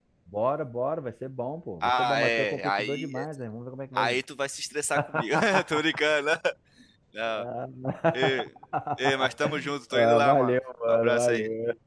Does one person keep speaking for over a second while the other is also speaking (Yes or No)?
Yes